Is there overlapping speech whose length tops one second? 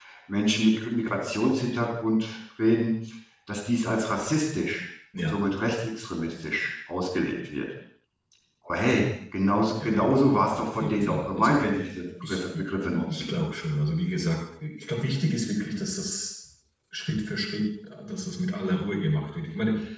Yes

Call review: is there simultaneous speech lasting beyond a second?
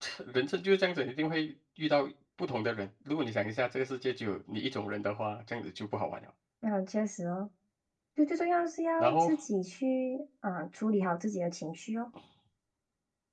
No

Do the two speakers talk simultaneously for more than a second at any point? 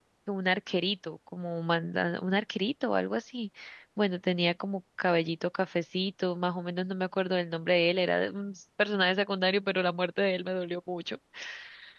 No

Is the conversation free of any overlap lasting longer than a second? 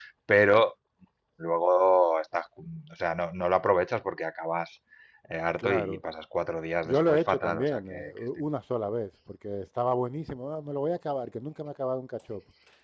No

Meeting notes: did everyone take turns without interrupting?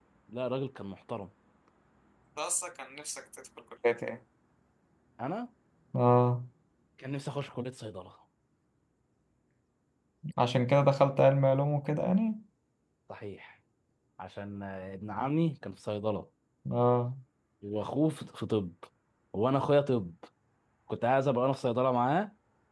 Yes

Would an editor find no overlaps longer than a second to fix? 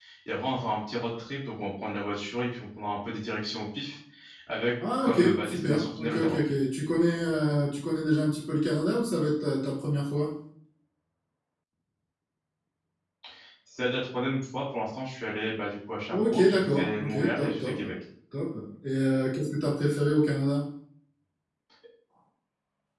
No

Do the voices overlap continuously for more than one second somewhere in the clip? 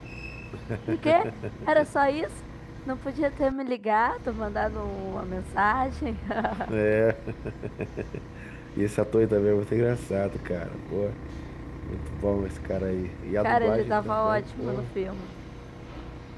Yes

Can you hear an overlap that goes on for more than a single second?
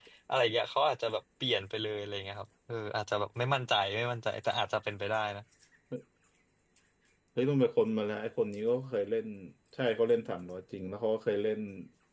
No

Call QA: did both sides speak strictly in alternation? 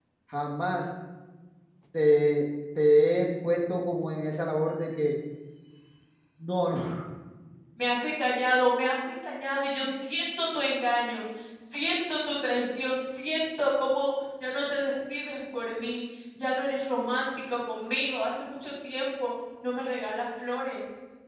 Yes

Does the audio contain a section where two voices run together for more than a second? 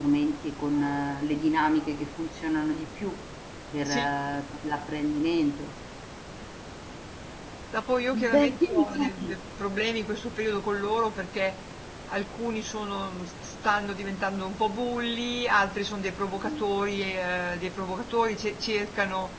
Yes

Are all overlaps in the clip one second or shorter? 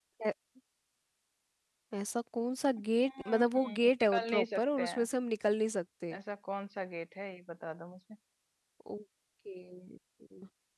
No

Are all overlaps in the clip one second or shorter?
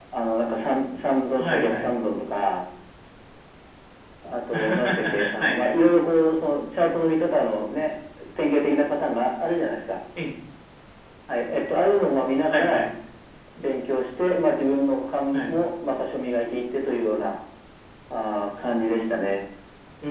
No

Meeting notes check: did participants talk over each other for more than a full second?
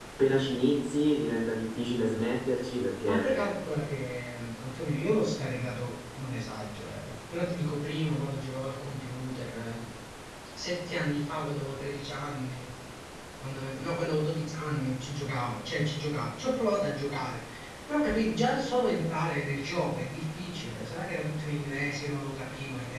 No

